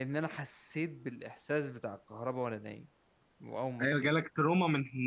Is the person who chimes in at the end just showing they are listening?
No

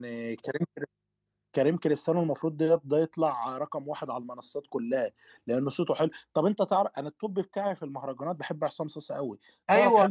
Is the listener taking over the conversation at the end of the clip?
No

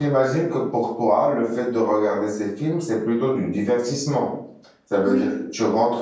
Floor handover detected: No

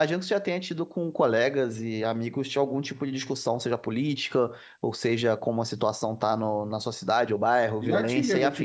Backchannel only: No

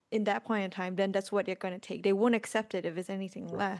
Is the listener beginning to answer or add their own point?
No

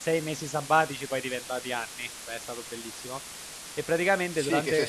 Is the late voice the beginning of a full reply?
Yes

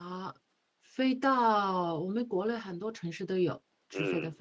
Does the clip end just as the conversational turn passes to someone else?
Yes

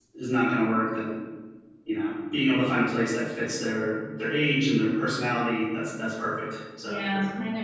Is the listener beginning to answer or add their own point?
Yes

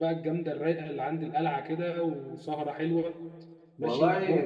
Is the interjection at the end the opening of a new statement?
Yes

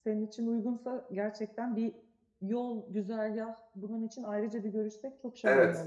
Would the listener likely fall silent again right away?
No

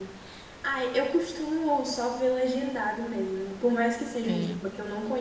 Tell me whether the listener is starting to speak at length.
No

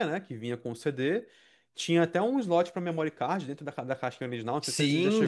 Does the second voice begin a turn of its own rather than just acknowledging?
Yes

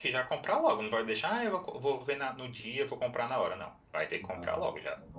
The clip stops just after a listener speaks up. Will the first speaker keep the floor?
No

